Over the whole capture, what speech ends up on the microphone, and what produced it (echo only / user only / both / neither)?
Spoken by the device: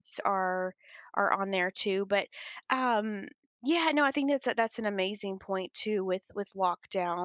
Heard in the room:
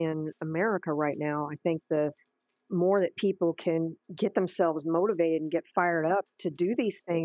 user only